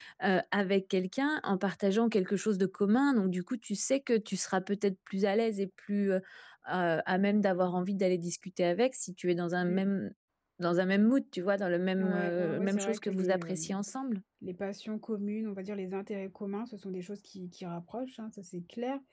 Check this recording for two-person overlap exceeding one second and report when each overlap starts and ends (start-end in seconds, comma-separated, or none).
12.0-13.7